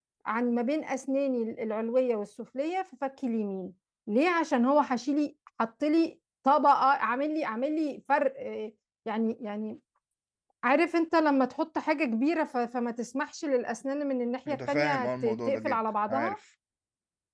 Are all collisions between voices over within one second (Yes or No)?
No